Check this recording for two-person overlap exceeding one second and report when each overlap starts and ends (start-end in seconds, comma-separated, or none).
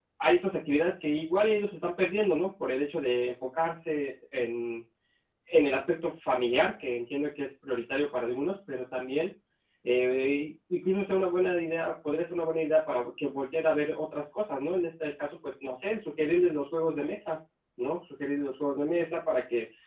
none